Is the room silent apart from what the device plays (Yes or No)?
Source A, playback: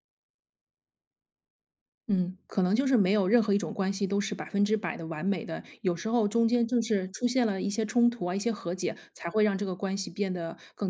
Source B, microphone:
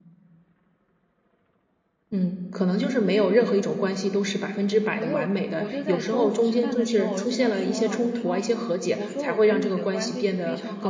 No